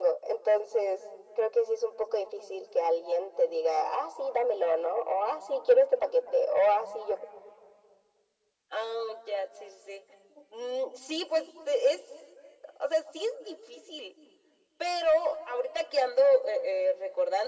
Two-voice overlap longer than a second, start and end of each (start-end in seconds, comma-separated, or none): none